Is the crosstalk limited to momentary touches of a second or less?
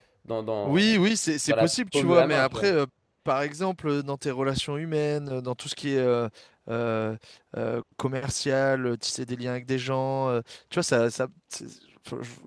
No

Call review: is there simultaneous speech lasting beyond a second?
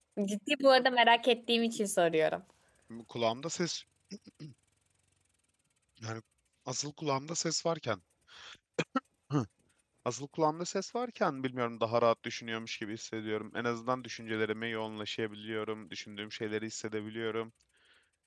No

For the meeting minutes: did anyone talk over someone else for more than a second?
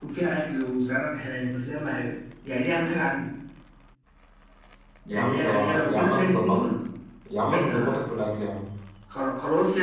Yes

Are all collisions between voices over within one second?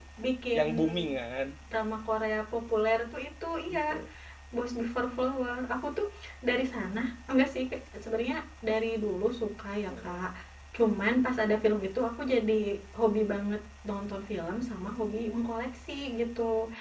Yes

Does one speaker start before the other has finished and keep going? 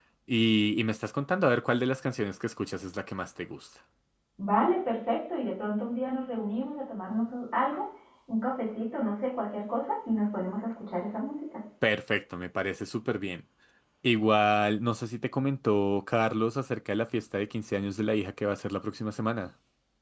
No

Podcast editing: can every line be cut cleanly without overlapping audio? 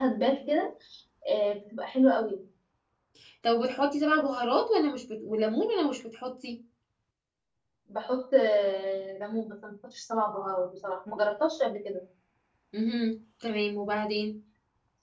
Yes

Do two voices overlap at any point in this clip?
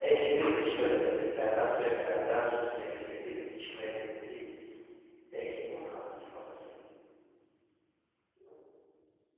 No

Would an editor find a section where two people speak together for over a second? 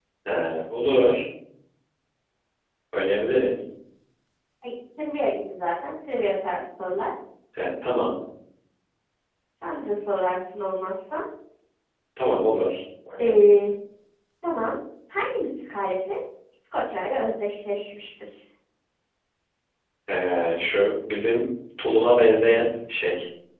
No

